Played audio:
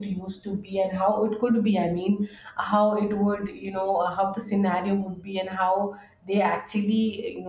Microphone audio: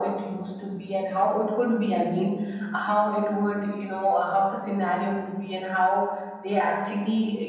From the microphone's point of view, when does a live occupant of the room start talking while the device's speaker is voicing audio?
none

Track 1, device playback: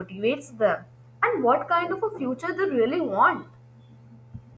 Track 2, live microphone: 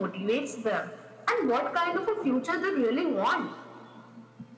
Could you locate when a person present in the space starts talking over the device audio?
none

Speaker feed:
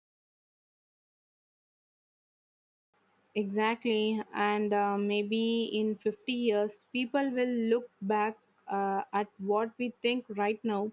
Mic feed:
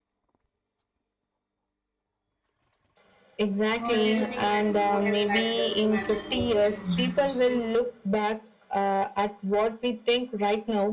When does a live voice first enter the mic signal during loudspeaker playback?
3.8 s

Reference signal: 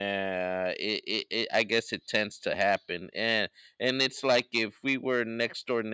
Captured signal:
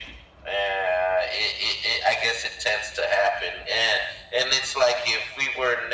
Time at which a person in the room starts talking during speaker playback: none

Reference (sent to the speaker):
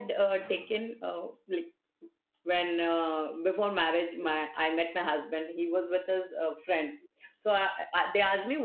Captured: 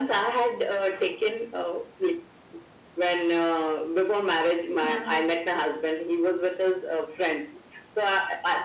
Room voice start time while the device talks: 4.8 s

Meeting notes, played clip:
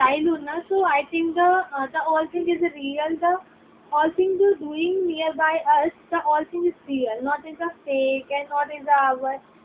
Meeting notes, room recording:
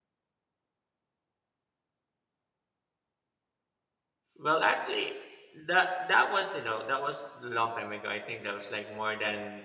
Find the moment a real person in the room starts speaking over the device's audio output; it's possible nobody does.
4.4 s

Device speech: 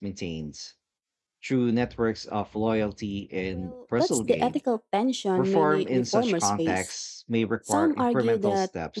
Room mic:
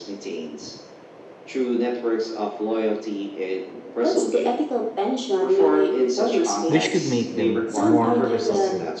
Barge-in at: 6.7 s

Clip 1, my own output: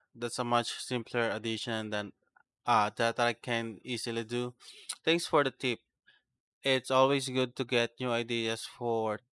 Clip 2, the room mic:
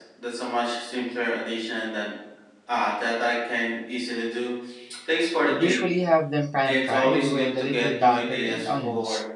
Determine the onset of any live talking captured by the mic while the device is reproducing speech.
5.5 s

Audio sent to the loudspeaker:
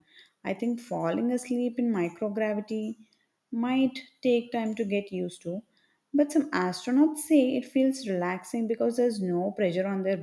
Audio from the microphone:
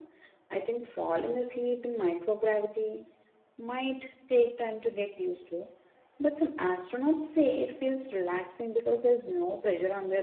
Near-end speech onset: none

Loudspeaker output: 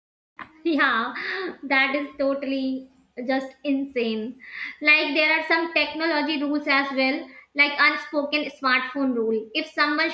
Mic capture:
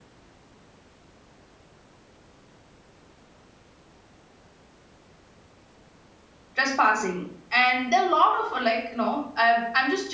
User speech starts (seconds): 6.5 s

